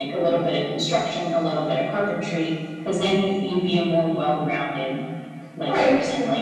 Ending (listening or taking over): taking over